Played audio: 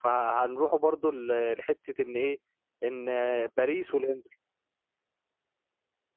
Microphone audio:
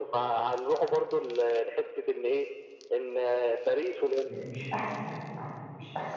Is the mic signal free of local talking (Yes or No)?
No